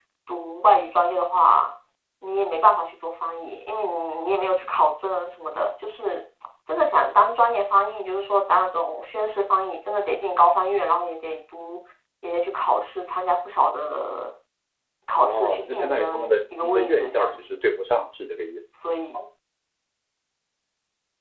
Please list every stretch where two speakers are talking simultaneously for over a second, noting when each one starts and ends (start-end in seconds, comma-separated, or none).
15.2-17.3